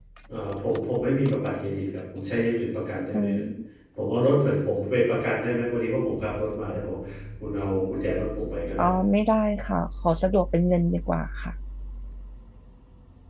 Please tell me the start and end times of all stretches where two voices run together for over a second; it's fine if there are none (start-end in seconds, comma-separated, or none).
none